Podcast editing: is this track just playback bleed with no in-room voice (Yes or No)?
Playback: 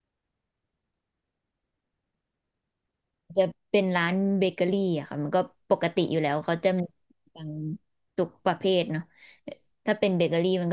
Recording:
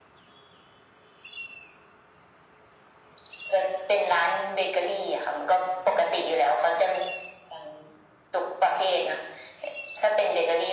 Yes